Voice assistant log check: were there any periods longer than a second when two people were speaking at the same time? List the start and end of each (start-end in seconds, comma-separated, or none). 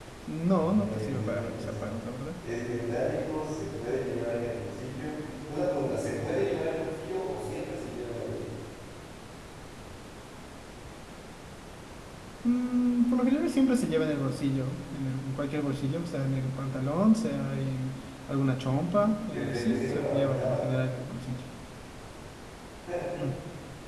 0.6-1.9, 19.3-20.6